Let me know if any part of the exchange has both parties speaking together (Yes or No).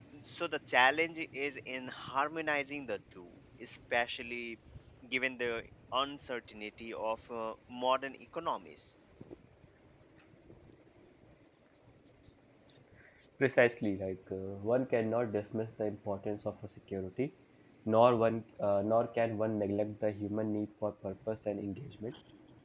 No